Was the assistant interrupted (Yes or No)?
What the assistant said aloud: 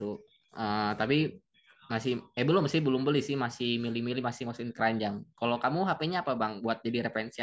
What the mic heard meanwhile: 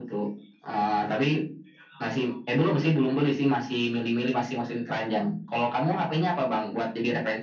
No